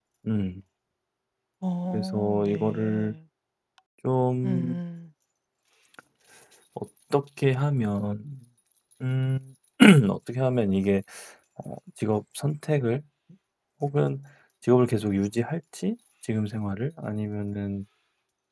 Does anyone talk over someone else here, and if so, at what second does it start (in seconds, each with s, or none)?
1.9 s